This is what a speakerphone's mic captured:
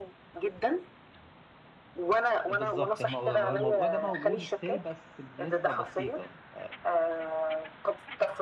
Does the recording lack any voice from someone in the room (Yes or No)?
No